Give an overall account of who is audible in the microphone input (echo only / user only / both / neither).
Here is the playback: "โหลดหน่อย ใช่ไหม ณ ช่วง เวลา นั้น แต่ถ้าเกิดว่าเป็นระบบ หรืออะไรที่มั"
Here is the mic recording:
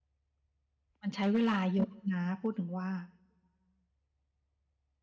user only